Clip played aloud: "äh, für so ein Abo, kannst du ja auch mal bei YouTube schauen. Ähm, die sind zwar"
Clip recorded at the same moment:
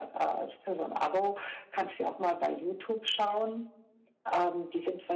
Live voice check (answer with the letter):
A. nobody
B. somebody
A